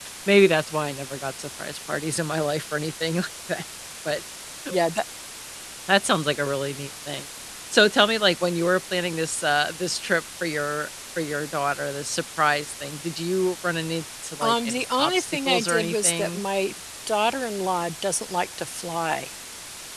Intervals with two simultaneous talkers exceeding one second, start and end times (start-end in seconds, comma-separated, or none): 14.4-16.4